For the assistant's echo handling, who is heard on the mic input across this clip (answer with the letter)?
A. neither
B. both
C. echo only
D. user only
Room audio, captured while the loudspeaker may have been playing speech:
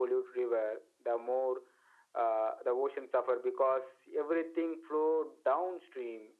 C